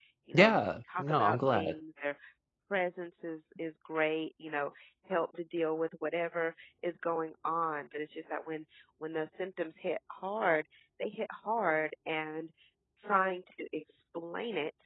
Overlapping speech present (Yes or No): Yes